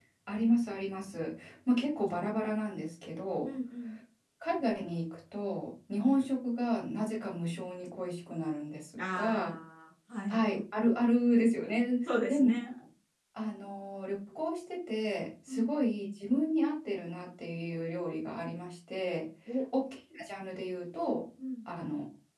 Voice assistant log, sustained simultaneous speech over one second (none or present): none